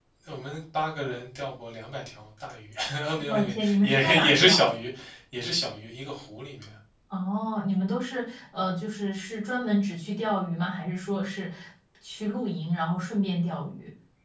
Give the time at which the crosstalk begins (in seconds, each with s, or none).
3.2 s